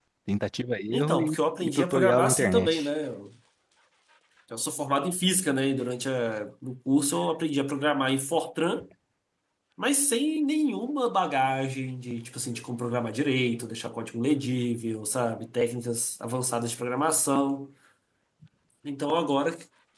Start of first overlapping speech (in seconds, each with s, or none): 0.9 s